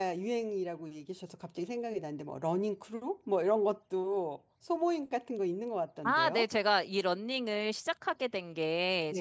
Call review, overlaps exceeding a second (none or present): none